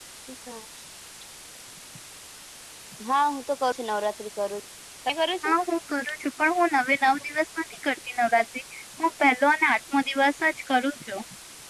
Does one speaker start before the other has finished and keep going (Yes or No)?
No